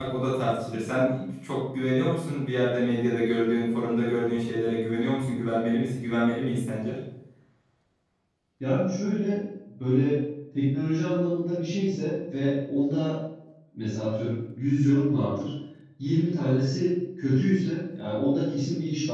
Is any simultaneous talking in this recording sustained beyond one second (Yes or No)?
No